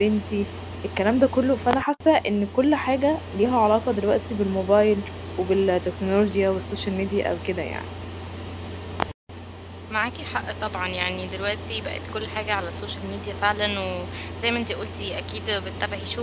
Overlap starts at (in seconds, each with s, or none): none